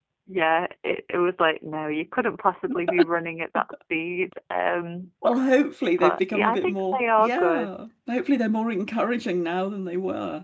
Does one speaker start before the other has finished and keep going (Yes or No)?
Yes